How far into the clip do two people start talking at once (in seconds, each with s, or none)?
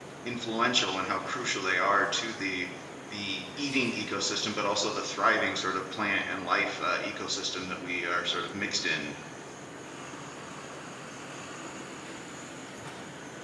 none